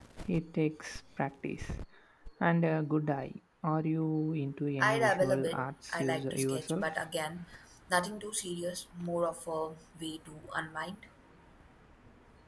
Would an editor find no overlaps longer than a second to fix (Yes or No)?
No